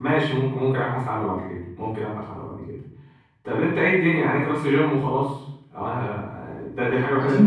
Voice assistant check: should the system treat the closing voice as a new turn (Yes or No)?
Yes